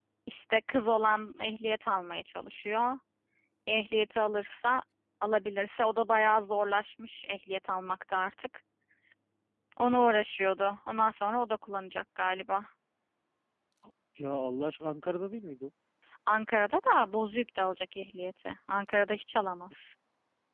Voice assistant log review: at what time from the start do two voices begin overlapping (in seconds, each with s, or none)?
none